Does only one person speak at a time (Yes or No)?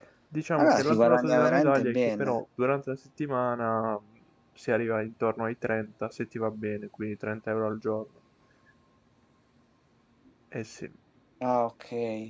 No